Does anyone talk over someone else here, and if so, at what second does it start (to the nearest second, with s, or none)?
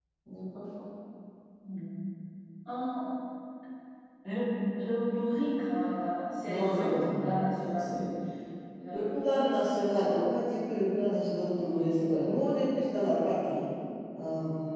6 s